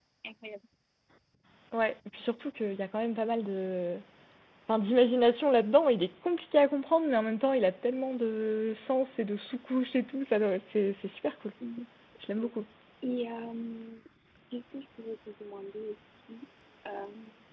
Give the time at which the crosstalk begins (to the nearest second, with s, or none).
none